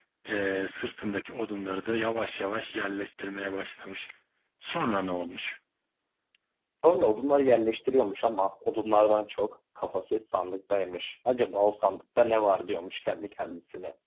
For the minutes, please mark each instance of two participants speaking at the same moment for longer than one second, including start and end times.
none

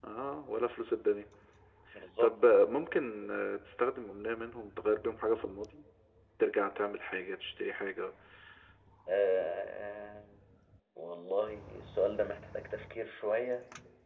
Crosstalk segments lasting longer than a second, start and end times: none

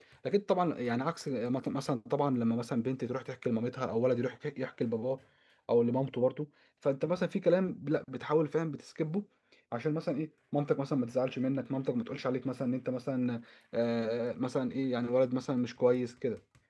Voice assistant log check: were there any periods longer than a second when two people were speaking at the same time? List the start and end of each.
none

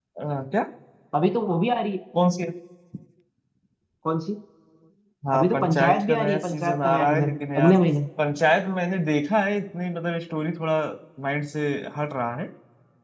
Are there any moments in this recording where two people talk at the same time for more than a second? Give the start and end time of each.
5.3-7.7

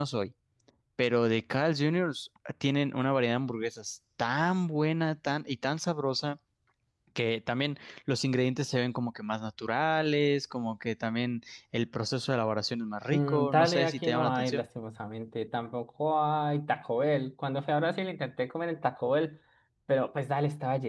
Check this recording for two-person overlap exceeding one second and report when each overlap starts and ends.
13.1-14.6

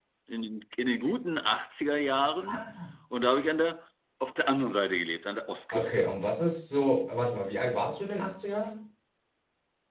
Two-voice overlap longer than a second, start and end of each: none

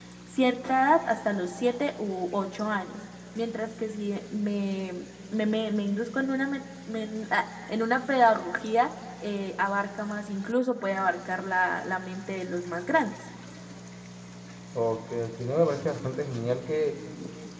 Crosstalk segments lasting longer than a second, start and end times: none

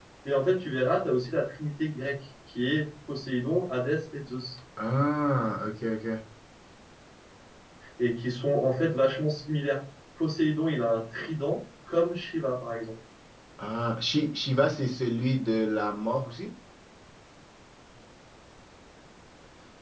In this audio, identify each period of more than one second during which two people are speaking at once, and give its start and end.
none

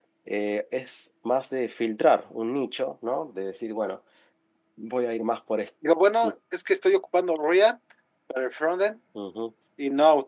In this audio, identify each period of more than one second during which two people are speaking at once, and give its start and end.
none

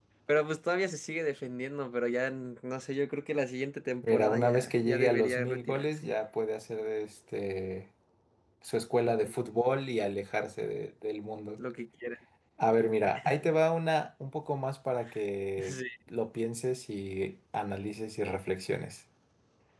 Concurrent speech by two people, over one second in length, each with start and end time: 4.0-6.1

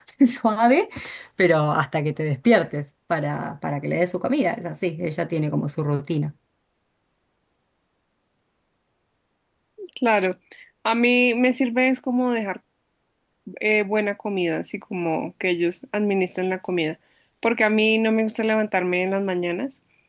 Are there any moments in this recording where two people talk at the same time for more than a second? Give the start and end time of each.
none

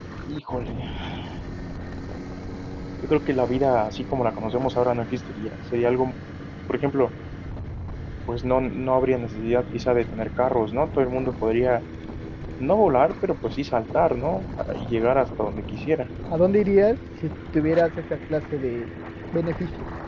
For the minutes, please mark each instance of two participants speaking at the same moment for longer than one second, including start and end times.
none

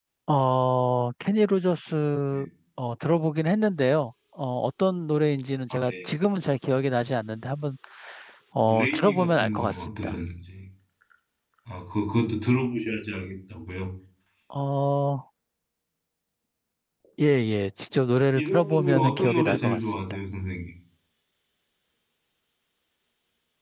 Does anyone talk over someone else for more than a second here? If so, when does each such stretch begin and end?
8.7-10.1, 18.4-20.0

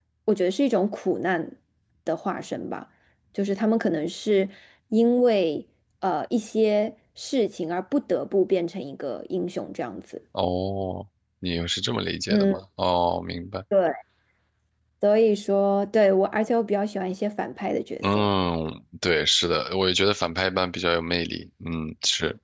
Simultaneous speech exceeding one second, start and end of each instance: none

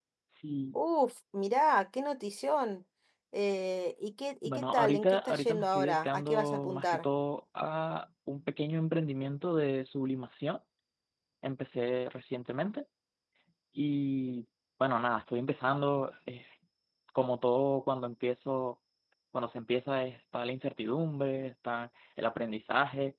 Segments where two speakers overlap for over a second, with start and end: 4.5-7.1

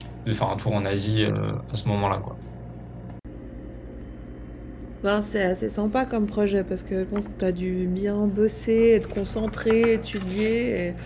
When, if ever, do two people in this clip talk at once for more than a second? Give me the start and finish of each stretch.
none

